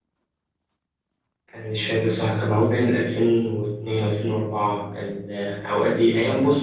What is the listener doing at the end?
listening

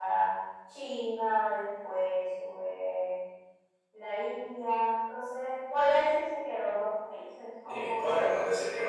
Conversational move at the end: taking over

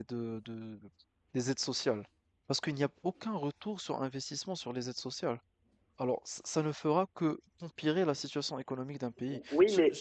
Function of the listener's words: taking over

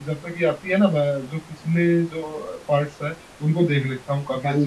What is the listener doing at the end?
taking over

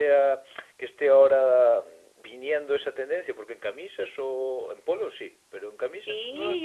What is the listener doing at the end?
taking over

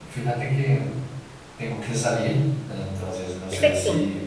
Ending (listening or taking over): listening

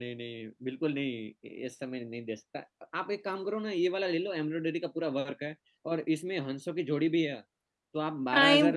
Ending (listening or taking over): listening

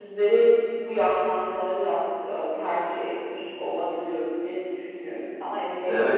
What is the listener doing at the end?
taking over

